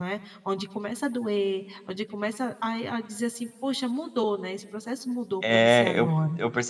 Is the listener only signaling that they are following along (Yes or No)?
No